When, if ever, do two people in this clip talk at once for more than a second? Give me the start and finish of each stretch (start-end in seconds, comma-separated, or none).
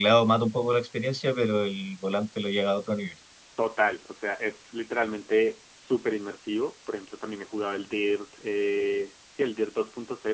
none